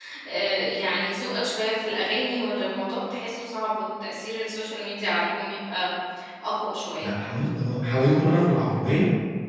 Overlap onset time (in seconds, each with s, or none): none